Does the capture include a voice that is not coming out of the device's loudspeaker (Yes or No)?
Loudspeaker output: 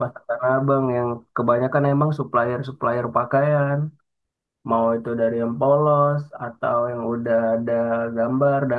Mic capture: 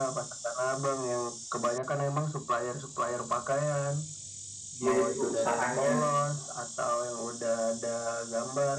Yes